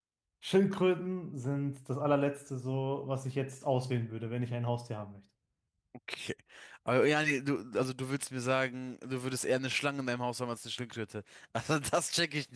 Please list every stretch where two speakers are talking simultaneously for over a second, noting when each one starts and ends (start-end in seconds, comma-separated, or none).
none